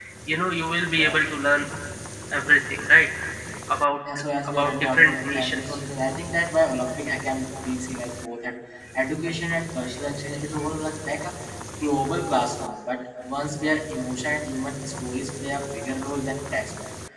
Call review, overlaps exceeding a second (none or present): present